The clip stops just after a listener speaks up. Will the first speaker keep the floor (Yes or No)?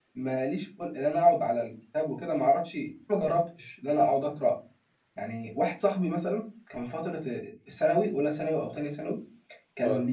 Yes